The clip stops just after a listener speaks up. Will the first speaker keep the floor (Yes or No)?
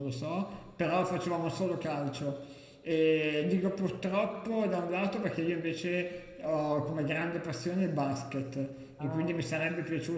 Yes